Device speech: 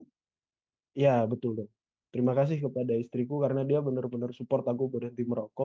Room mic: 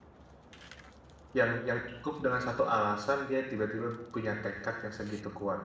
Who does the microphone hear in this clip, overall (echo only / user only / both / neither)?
user only